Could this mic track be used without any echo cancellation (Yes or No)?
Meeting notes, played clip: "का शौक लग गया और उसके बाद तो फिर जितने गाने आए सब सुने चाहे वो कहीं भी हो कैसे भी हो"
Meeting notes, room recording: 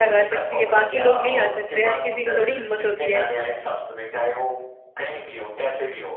No